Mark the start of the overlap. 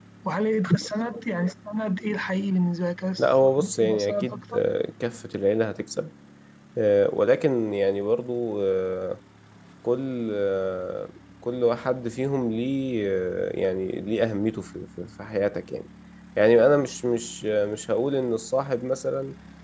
3.2 s

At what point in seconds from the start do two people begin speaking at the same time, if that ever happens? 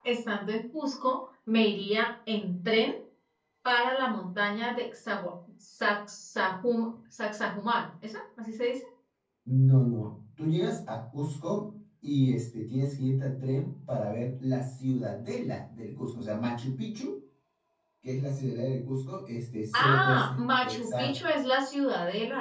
19.7 s

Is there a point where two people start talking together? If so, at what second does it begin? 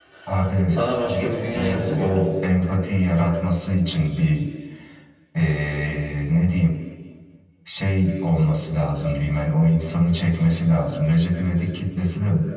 0.7 s

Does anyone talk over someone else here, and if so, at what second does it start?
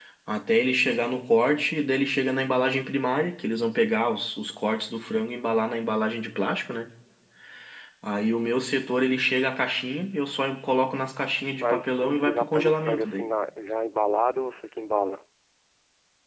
11.6 s

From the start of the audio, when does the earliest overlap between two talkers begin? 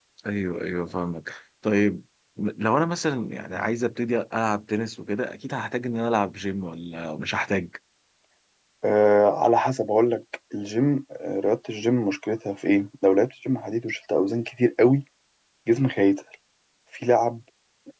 none

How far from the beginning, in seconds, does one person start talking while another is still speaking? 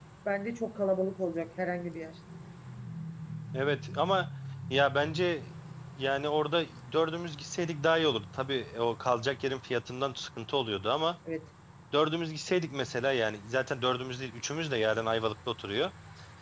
none

